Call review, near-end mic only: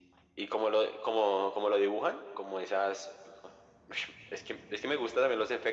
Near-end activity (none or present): none